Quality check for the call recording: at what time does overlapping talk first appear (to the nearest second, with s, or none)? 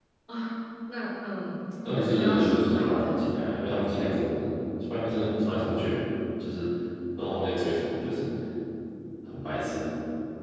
2 s